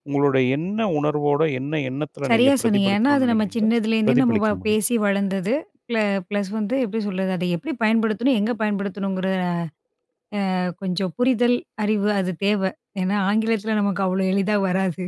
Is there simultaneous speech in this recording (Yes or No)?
Yes